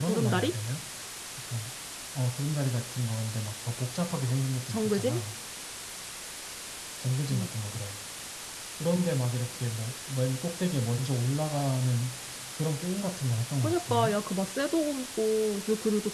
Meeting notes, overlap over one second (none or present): none